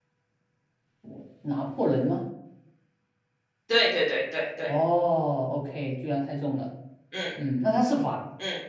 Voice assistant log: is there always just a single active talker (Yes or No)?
Yes